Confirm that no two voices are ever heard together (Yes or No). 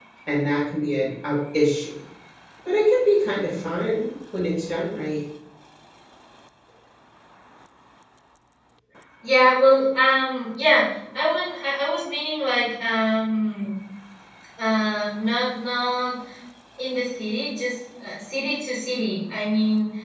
Yes